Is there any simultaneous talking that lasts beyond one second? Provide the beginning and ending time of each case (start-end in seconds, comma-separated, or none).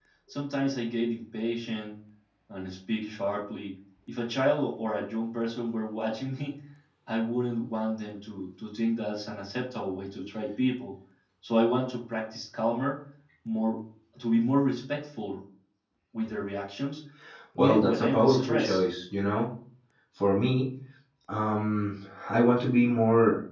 17.6-18.8